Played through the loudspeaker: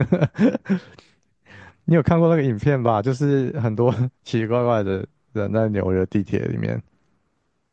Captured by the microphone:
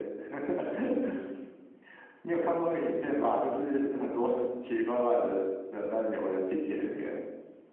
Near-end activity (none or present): none